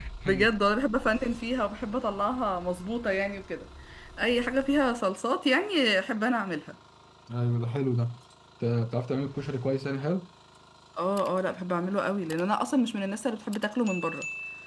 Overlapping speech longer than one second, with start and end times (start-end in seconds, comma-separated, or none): none